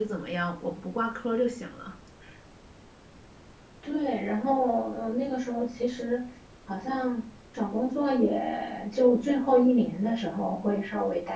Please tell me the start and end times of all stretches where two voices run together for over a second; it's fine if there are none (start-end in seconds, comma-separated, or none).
none